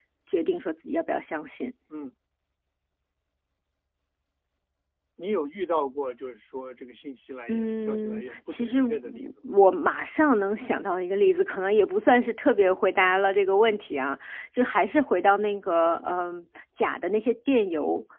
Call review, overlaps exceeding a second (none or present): present